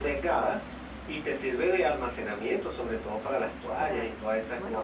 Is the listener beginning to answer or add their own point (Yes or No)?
Yes